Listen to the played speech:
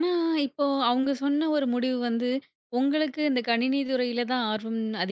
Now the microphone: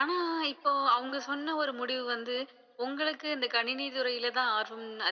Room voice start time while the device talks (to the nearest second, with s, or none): none